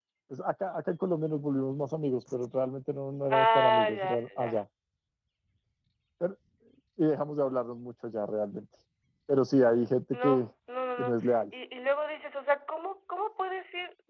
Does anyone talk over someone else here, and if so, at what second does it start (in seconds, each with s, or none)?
3.3 s